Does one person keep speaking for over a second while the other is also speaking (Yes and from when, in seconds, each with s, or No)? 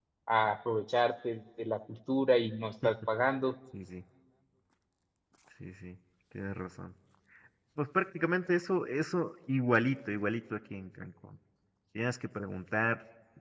No